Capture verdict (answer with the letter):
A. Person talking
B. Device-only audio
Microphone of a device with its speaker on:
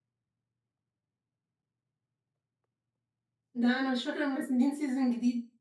A